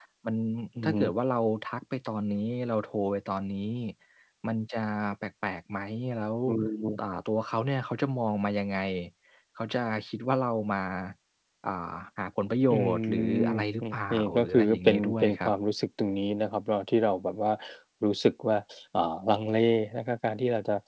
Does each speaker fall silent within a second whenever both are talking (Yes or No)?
No